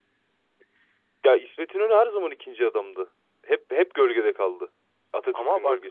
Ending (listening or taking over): taking over